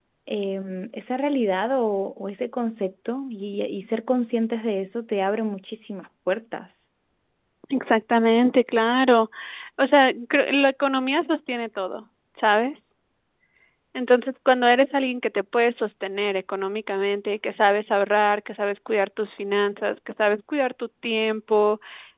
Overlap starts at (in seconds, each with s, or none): none